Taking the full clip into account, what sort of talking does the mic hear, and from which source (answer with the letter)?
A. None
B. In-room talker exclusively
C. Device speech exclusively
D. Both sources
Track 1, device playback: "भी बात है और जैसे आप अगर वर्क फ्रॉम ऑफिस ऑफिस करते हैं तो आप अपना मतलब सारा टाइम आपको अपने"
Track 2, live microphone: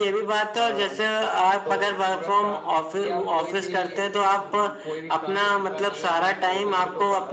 D